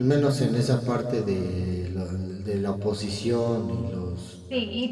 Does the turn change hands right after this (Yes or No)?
Yes